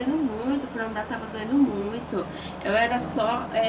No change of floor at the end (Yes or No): Yes